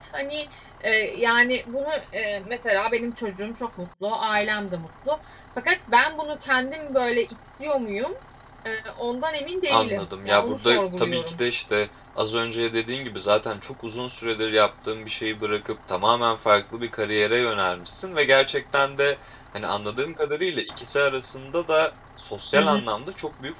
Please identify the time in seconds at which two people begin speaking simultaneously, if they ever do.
9.7 s

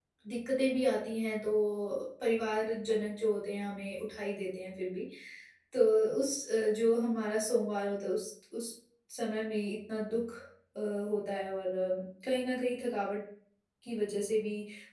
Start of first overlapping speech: none

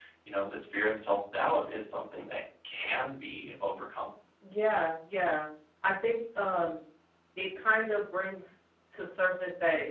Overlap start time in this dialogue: none

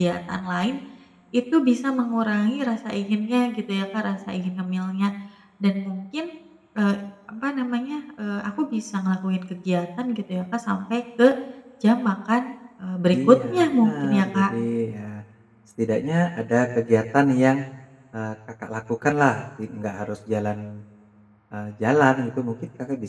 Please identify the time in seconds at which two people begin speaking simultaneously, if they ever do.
13.1 s

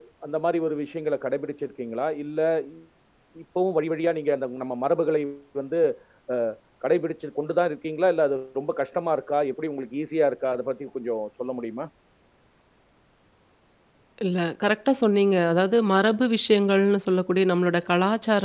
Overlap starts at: none

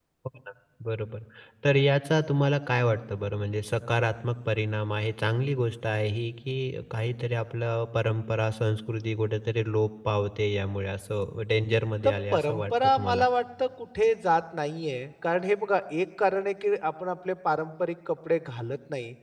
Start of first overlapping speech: 12.0 s

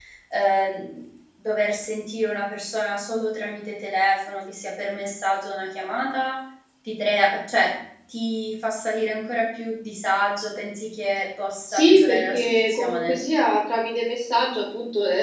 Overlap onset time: 11.7 s

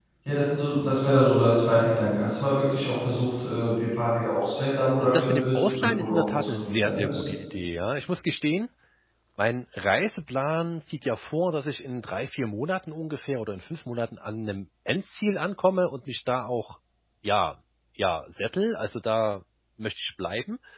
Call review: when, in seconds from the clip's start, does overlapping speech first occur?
5.0 s

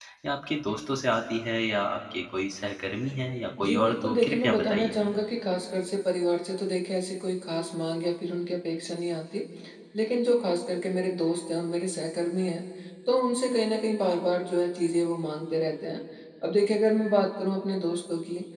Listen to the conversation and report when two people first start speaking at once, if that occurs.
3.6 s

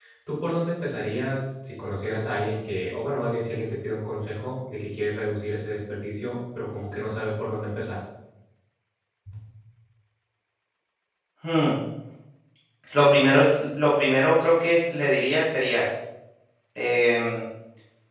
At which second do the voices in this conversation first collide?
none

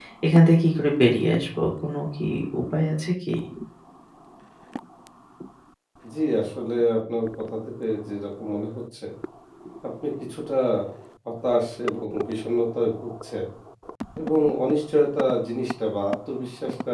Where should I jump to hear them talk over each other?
none

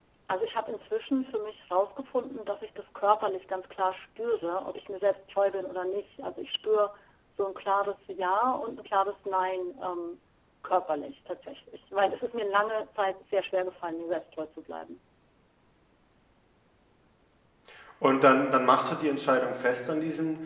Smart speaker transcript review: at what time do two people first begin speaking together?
none

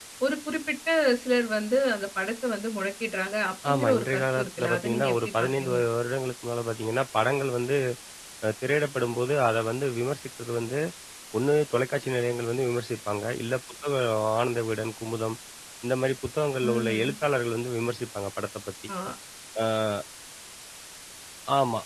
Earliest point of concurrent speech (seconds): 3.7 s

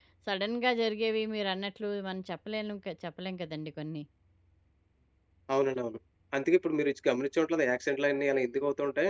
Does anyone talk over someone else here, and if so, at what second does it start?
none

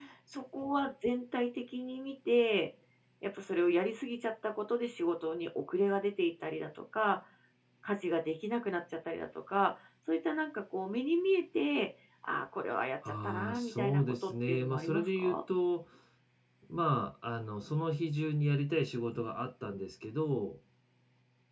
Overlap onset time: 13.0 s

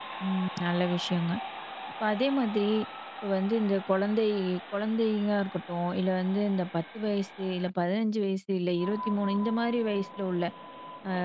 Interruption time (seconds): none

